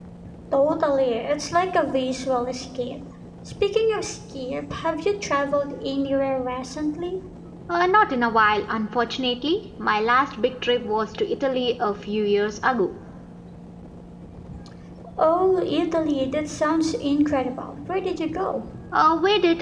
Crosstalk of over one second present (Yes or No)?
No